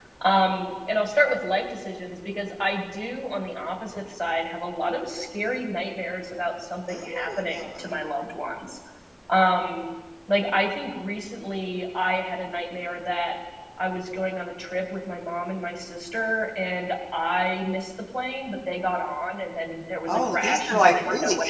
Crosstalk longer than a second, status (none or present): present